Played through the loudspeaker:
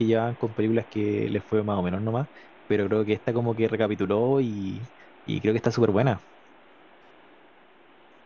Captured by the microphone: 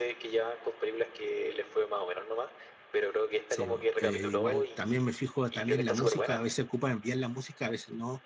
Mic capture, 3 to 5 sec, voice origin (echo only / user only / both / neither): both